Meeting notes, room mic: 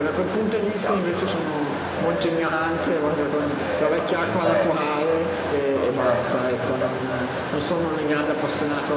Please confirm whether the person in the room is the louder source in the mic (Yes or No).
No